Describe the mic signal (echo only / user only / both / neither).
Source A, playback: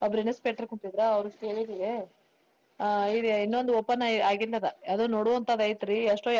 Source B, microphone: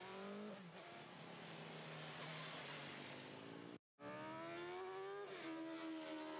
neither